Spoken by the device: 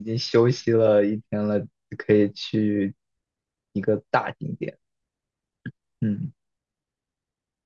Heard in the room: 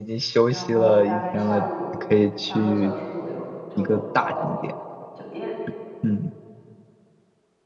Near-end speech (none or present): present